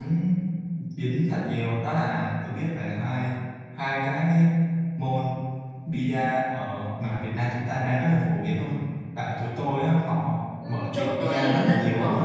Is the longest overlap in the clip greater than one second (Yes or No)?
Yes